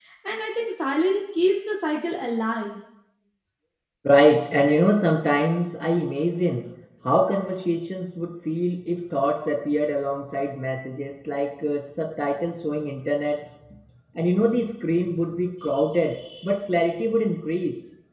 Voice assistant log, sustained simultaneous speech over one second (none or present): none